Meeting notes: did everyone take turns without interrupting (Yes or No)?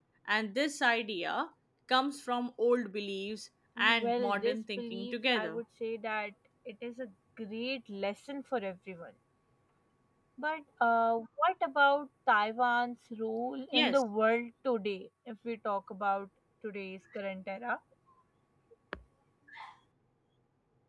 No